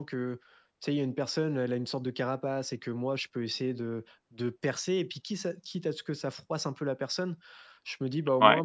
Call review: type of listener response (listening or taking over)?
listening